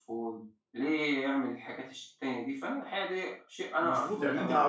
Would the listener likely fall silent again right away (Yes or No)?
No